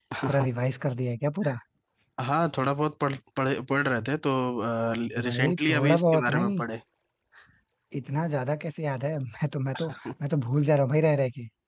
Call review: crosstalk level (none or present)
present